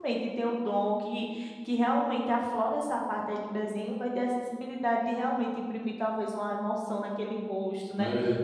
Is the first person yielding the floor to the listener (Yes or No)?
No